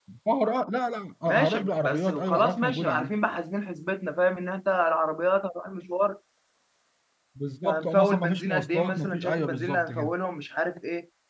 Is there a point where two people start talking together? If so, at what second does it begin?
1 s

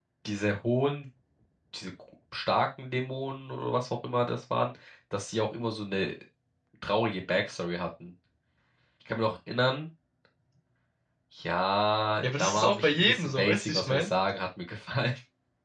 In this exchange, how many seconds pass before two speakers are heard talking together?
12 s

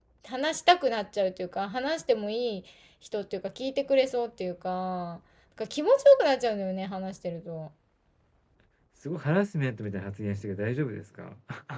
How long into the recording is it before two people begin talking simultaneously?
none

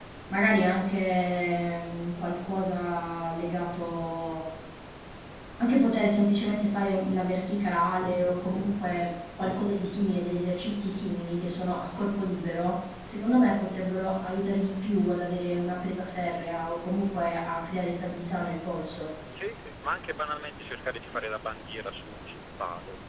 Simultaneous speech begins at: none

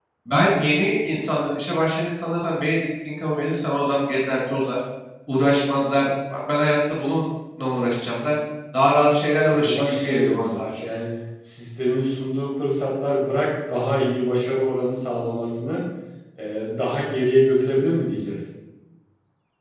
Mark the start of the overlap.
9 s

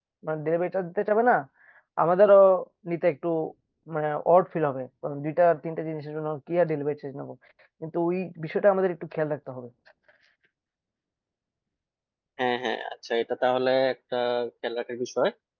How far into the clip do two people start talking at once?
none

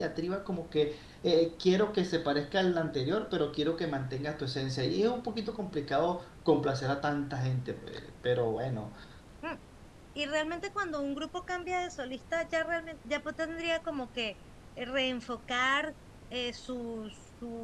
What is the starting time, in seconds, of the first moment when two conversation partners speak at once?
none

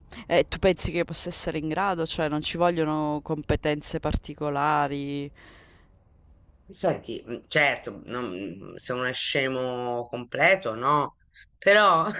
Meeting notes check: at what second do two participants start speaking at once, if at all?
none

